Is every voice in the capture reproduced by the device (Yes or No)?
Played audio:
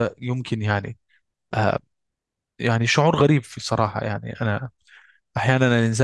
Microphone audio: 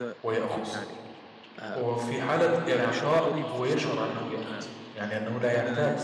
No